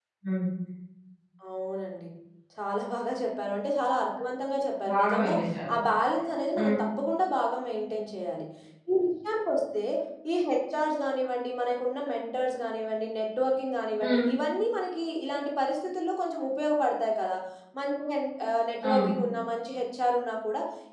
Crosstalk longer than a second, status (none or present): none